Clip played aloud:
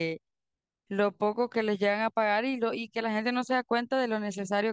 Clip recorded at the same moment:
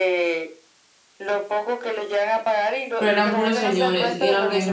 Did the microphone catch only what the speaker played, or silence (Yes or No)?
No